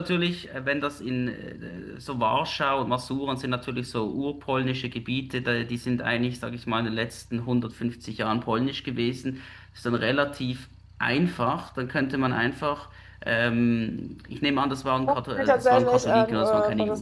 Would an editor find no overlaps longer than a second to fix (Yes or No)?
No